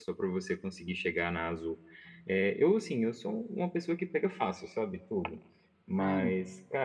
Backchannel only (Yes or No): Yes